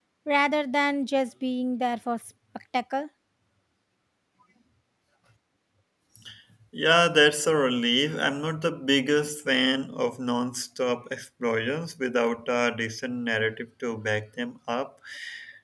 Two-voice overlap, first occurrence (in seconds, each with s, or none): none